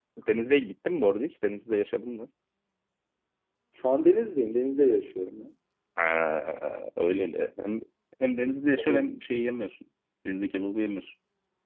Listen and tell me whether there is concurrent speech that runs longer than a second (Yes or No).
No